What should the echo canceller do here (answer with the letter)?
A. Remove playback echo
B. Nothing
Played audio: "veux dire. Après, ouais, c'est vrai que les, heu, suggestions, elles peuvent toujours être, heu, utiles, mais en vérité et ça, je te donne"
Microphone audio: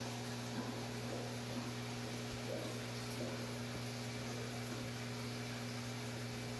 B